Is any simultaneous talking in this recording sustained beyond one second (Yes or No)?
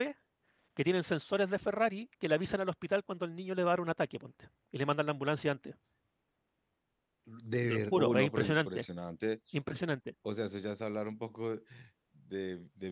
Yes